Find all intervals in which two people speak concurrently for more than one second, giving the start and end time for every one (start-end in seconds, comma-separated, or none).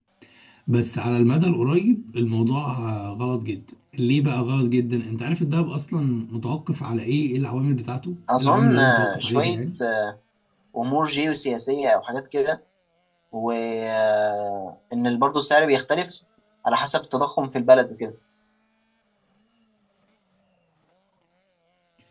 8.4-9.6